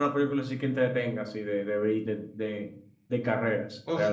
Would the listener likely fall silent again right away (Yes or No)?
No